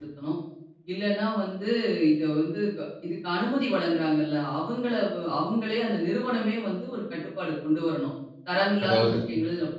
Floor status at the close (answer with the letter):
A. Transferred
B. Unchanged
B